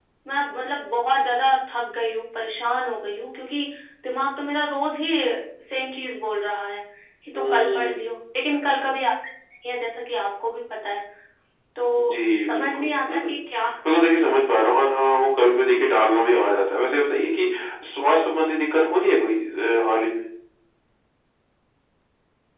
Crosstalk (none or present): present